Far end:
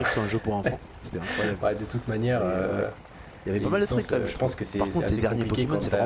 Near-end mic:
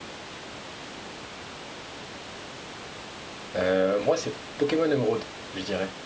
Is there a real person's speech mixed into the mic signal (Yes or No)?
Yes